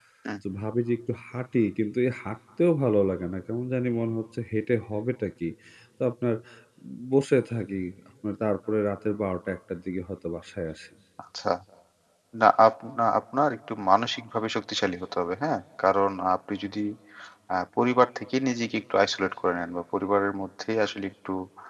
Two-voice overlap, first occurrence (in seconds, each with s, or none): none